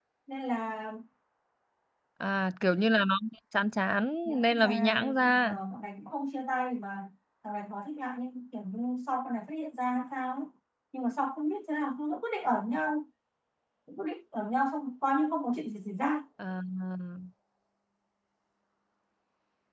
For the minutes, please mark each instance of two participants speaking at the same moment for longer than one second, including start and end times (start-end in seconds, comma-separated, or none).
4.2-5.5